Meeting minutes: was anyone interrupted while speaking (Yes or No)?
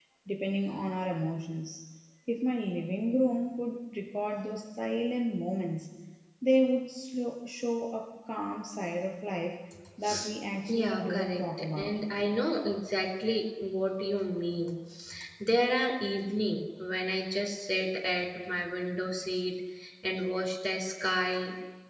Yes